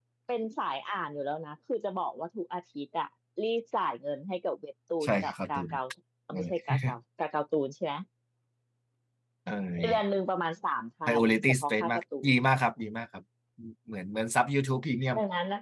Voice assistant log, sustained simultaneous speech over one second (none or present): present